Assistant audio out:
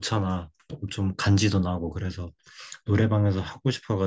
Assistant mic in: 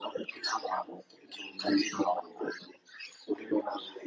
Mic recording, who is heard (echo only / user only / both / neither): echo only